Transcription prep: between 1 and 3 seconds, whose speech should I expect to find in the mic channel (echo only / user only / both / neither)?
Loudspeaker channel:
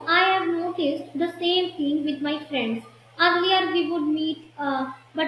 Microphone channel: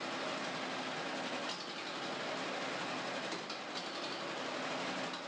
neither